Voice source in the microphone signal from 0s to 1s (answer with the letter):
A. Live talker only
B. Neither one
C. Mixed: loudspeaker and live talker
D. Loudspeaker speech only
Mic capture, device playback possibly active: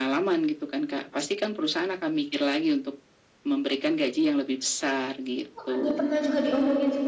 D